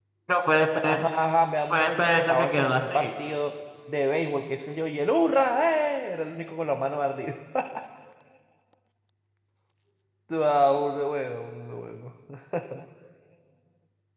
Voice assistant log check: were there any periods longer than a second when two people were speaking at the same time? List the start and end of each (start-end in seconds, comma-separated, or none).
1.7-3.1